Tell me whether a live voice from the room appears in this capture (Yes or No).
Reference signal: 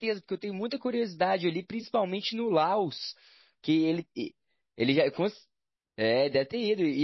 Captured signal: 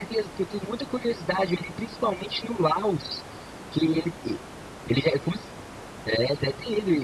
No